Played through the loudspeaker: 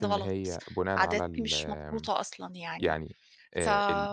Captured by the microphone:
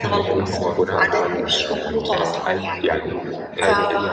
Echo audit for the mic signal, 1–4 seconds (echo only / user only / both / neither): both